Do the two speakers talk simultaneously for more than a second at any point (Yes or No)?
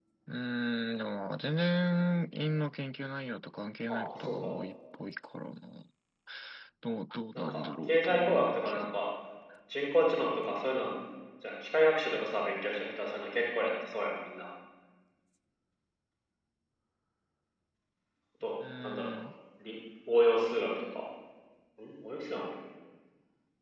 Yes